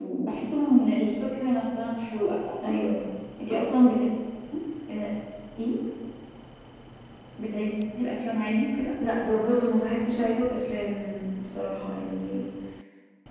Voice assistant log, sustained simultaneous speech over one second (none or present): none